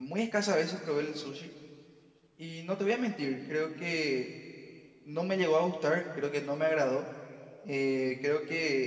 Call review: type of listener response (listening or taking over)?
listening